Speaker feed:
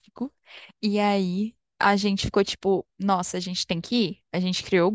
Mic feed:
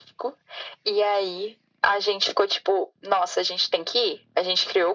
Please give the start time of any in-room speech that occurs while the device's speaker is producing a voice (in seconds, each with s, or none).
none